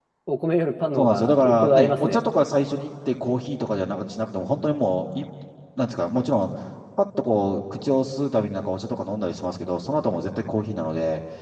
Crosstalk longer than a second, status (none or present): present